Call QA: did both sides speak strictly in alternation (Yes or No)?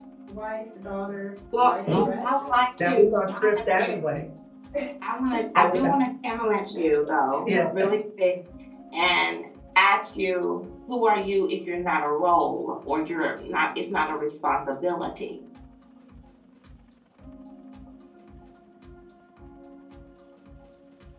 No